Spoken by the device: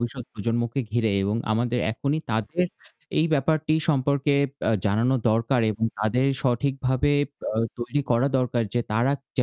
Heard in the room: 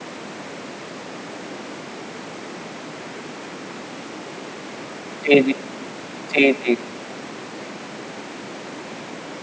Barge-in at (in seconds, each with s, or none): 5.2 s